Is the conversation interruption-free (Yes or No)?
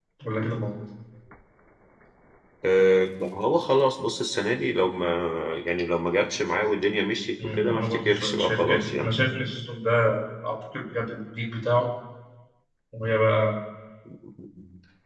No